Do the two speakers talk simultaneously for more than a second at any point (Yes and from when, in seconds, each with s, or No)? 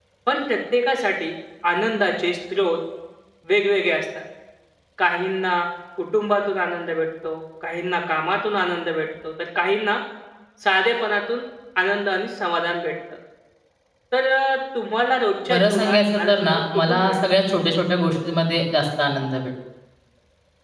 Yes, from 15.5 s